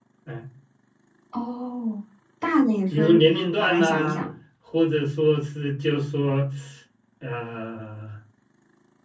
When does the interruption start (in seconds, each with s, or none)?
2.9 s